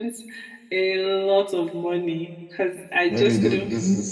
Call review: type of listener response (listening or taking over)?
taking over